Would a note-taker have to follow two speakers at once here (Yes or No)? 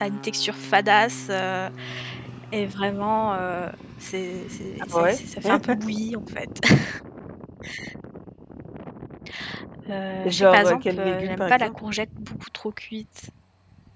Yes